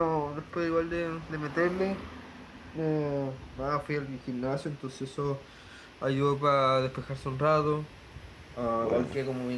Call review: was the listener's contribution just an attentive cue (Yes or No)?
Yes